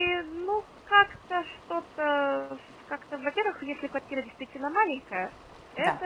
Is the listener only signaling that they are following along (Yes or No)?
Yes